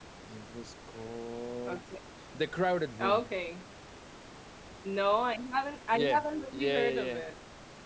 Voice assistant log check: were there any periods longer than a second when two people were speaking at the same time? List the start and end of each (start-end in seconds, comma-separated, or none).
5.9-7.2